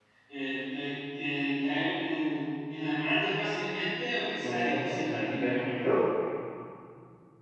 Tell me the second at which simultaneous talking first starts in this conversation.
4.4 s

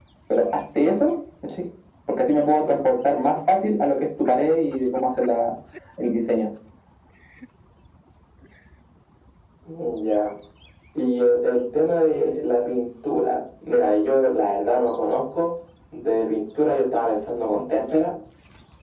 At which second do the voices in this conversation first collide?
none

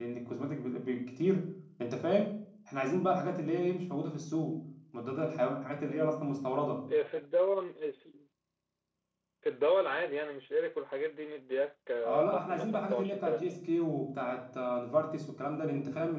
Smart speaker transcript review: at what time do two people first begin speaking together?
12.0 s

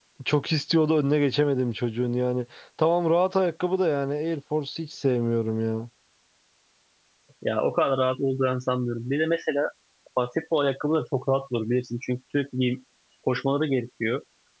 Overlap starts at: none

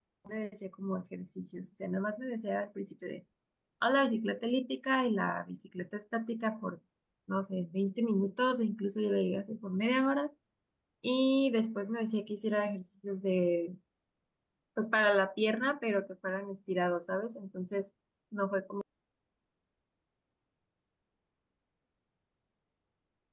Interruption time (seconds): none

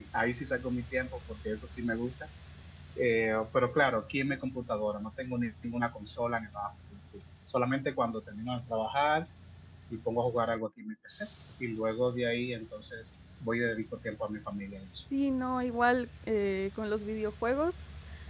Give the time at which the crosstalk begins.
none

